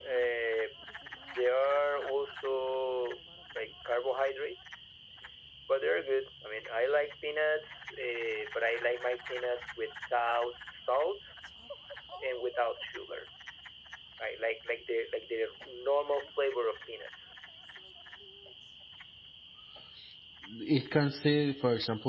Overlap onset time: none

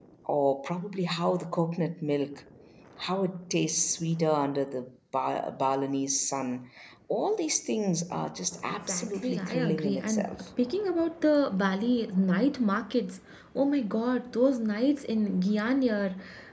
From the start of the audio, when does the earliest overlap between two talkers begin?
8.9 s

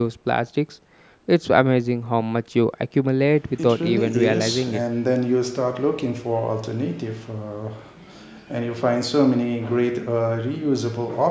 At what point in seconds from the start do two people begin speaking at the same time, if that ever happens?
3.6 s

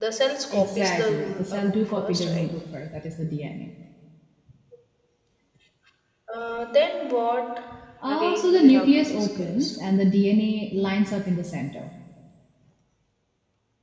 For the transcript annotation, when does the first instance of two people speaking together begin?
0.5 s

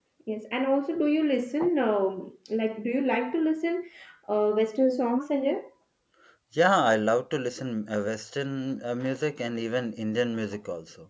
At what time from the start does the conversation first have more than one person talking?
none

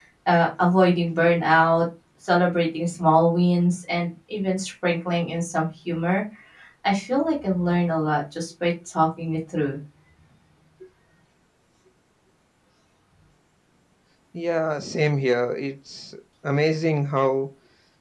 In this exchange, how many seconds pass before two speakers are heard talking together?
none

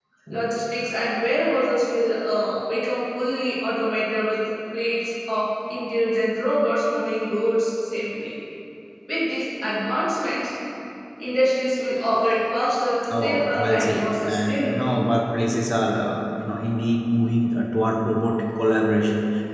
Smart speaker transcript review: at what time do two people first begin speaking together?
13.0 s

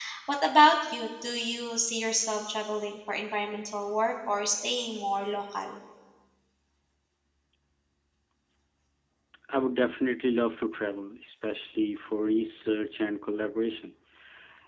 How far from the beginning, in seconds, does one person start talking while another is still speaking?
none

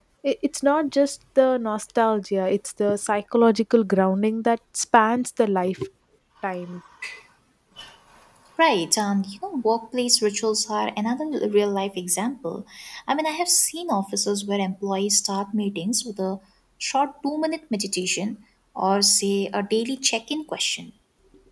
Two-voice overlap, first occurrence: none

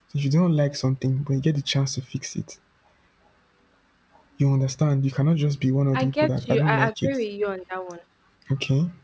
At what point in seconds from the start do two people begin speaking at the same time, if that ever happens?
5.9 s

